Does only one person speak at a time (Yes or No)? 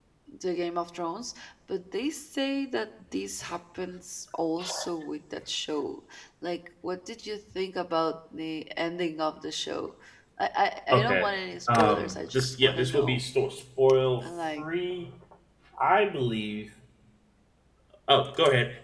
No